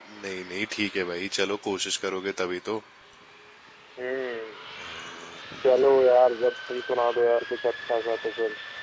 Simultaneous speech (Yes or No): No